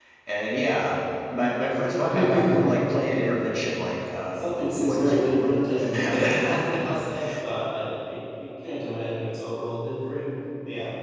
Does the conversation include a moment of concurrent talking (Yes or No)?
Yes